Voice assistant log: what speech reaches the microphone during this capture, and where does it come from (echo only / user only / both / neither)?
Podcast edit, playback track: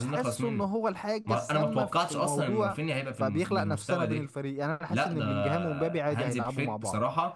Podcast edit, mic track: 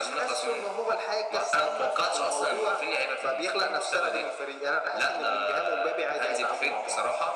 echo only